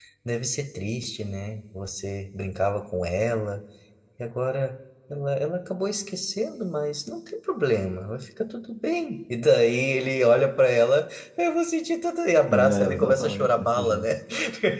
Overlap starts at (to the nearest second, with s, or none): 13 s